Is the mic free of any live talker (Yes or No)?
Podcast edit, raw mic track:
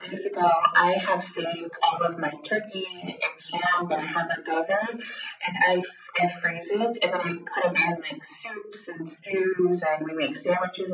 Yes